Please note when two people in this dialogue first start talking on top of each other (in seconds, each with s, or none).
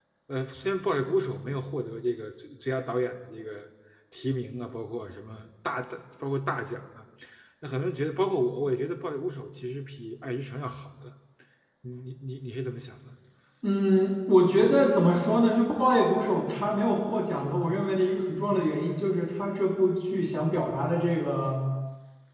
none